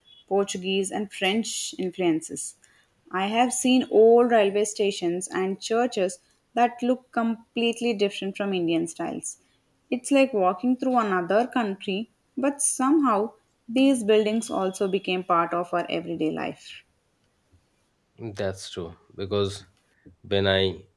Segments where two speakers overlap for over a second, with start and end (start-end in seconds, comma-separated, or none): none